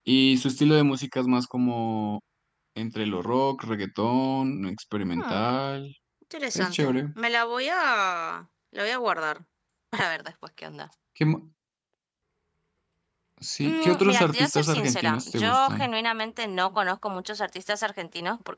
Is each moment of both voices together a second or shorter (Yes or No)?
No